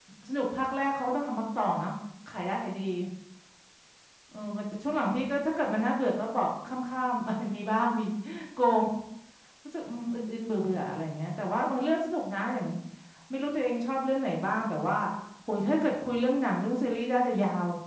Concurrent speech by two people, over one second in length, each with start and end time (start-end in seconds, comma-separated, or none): none